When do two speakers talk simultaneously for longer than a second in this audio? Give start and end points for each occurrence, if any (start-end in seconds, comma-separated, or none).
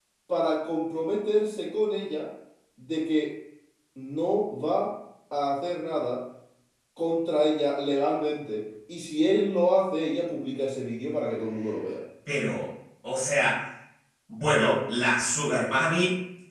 none